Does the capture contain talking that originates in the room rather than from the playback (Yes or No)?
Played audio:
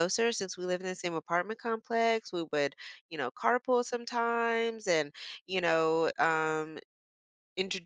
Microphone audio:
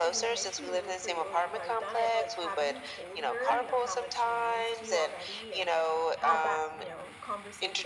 Yes